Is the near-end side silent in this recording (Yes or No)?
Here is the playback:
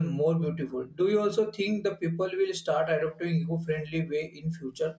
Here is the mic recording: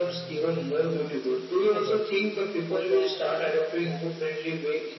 No